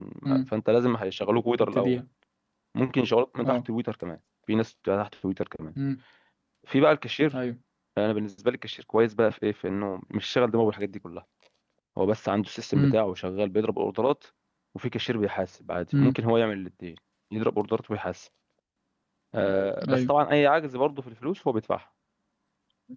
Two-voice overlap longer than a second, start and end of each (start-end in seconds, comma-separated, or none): none